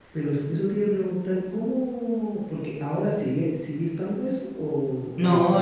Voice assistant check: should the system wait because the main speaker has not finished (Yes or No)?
No